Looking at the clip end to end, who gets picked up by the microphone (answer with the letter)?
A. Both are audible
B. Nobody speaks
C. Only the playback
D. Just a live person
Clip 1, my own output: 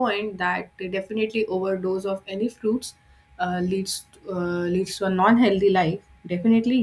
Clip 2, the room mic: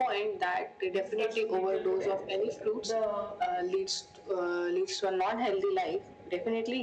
A